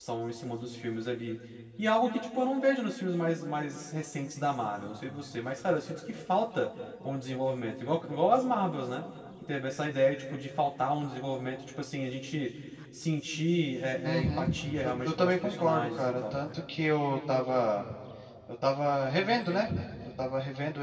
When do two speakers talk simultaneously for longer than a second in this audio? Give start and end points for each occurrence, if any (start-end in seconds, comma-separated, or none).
15.0-16.4